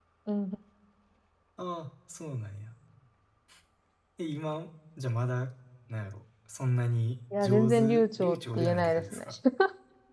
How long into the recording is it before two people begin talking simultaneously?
7 s

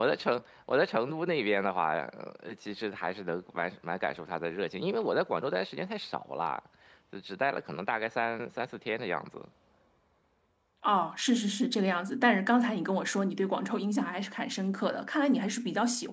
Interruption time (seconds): none

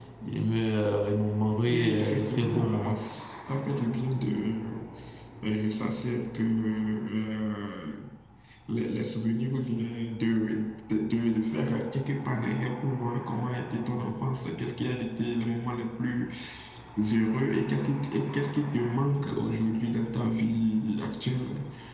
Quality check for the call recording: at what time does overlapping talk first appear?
2 s

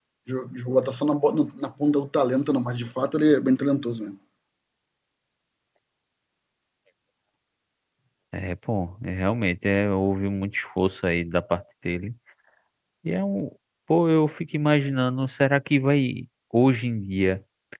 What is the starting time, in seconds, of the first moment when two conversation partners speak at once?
none

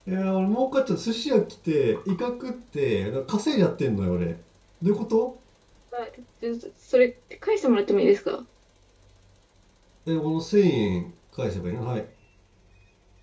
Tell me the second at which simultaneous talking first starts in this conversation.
none

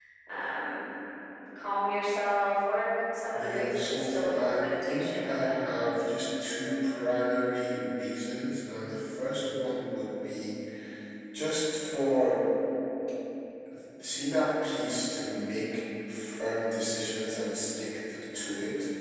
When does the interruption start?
3 s

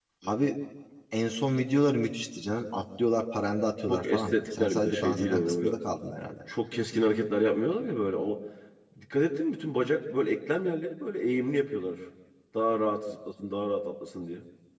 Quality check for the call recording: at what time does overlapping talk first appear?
4 s

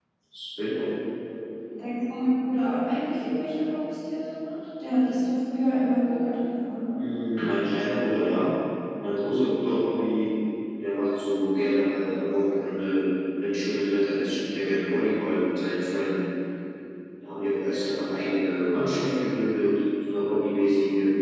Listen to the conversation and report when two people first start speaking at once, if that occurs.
none

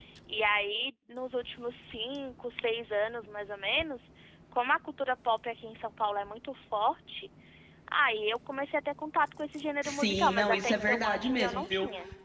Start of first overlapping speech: 10 s

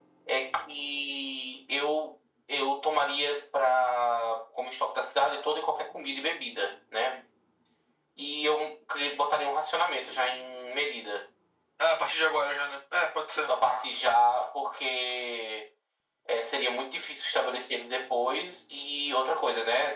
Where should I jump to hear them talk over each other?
none

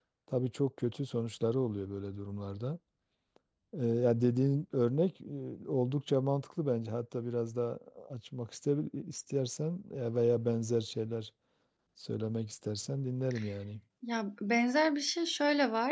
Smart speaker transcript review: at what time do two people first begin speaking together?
none

